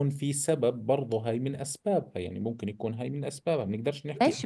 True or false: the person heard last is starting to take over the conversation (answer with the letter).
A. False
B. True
B